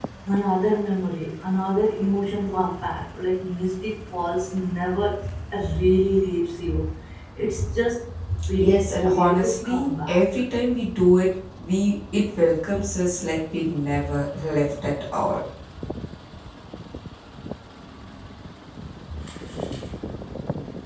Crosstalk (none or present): present